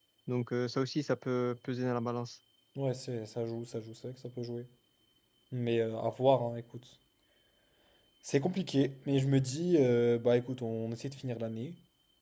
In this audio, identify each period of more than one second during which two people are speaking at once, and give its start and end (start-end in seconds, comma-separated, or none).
none